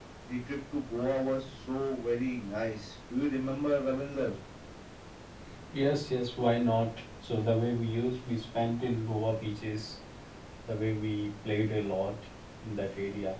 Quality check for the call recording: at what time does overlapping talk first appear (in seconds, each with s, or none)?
none